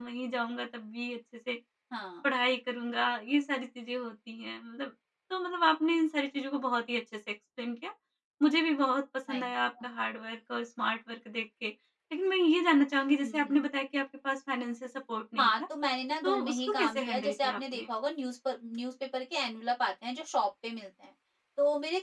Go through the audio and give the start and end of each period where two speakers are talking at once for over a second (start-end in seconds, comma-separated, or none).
16.2-17.8